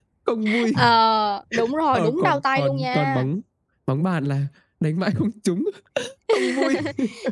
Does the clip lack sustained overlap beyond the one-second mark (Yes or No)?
No